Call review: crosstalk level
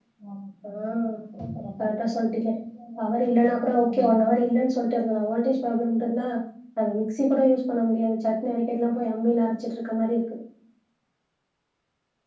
present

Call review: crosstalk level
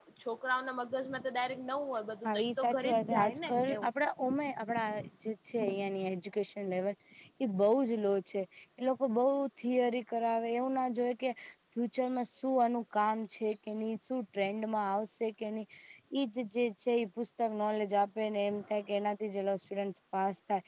present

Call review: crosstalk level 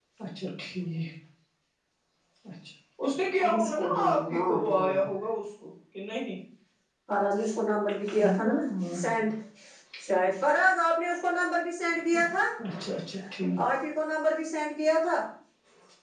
present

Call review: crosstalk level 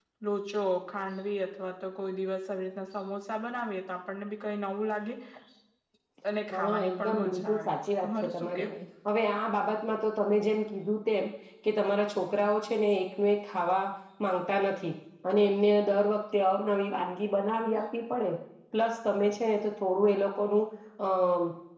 present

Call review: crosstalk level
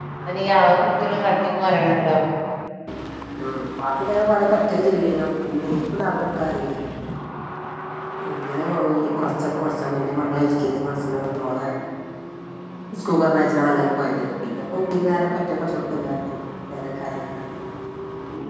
none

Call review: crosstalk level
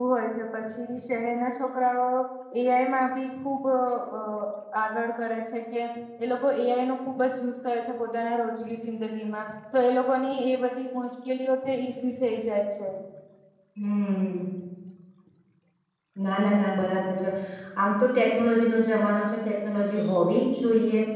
none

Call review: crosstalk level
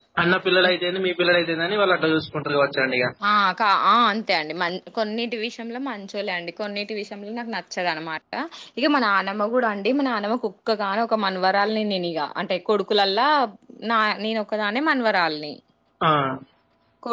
none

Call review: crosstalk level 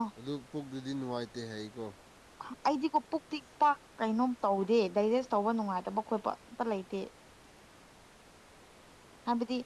none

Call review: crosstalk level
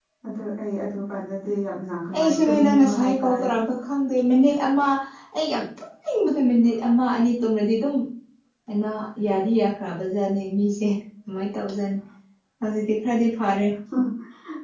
present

